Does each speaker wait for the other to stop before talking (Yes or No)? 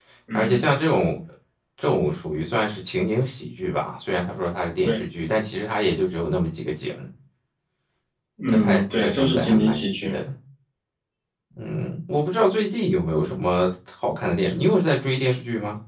No